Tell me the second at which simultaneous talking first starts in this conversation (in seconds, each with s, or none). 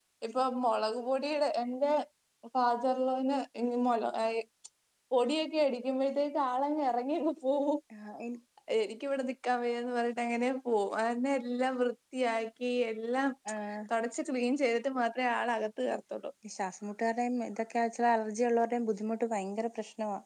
none